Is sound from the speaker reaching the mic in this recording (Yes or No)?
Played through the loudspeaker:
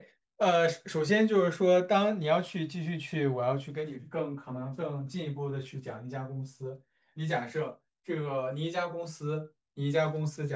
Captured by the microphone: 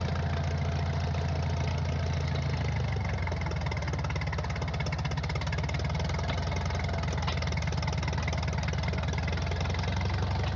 No